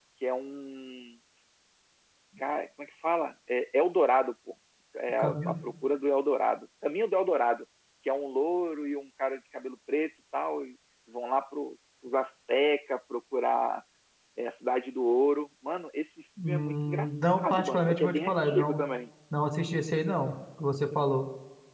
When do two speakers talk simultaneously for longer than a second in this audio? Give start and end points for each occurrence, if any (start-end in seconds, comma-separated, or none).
16.4-18.8